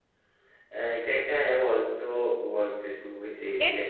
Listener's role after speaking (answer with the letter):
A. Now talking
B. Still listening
A